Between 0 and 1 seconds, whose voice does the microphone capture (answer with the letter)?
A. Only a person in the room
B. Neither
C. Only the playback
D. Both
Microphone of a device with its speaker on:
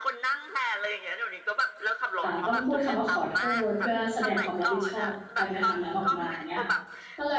C